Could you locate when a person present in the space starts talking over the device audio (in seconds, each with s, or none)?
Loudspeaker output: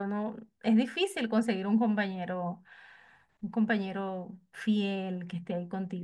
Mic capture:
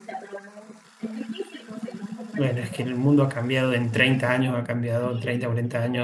2.3 s